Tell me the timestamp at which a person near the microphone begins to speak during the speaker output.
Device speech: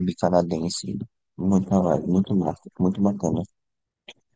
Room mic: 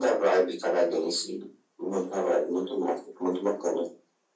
none

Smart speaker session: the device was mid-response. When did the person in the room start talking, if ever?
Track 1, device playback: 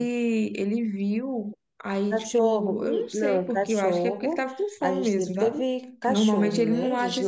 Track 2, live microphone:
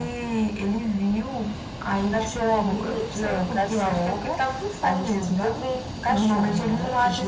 none

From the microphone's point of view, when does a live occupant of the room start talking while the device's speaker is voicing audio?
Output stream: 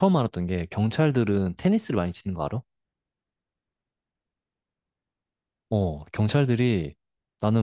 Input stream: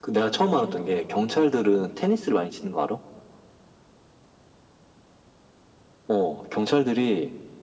none

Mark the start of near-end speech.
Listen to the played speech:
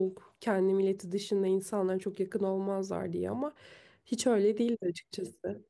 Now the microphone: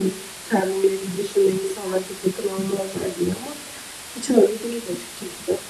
none

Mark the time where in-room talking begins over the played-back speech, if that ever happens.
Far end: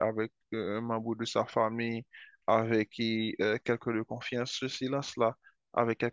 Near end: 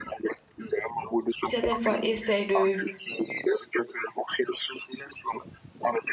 1.4 s

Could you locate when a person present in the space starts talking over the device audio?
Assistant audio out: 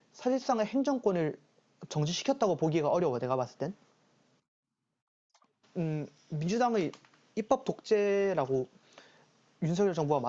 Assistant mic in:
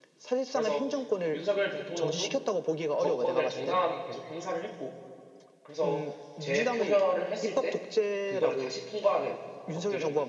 0.5 s

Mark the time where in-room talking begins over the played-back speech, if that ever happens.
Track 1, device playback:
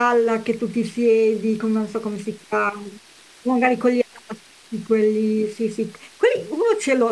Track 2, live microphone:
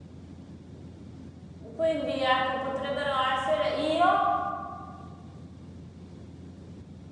1.7 s

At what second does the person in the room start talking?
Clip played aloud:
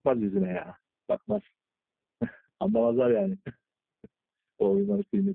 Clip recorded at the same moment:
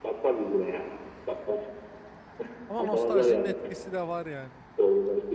2.7 s

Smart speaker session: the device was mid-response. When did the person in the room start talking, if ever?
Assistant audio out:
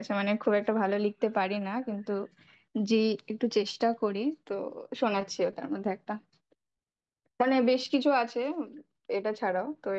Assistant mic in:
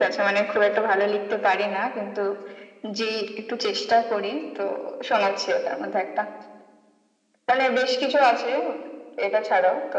none

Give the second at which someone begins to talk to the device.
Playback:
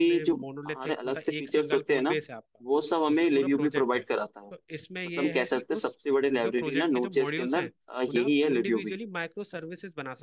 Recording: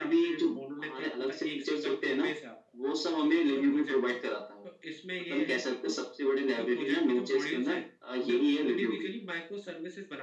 none

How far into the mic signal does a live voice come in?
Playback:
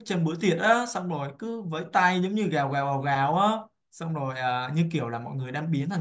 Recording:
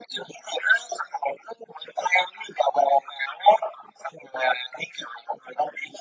none

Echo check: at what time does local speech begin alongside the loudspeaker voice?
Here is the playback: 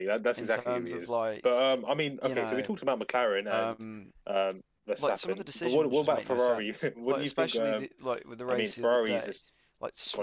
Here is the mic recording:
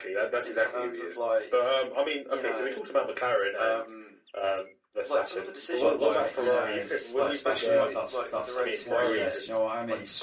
5.8 s

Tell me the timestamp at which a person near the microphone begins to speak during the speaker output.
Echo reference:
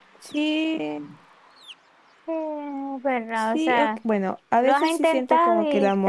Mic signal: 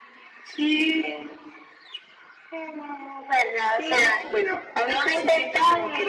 none

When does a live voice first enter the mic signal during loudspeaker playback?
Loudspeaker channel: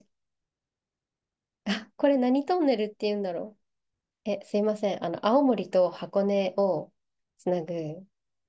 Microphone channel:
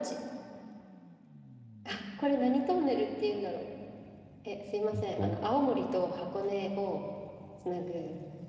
4.9 s

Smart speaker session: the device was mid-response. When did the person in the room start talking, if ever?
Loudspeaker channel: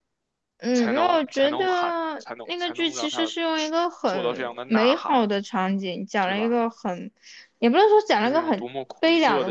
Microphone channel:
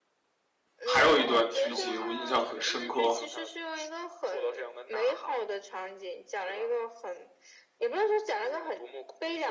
0.8 s

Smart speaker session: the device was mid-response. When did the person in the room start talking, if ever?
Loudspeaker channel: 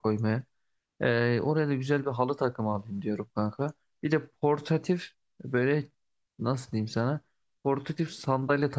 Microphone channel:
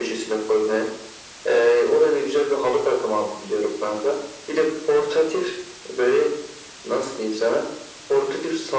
none

